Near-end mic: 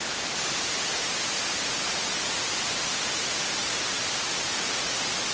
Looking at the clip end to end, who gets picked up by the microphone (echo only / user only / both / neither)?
neither